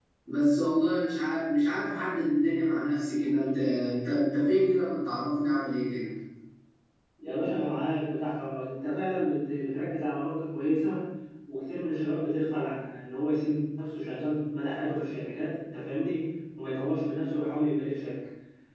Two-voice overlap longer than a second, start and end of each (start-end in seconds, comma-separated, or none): none